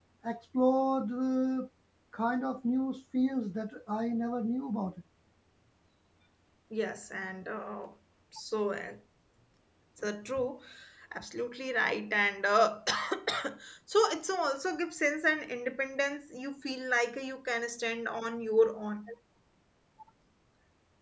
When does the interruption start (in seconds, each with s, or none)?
none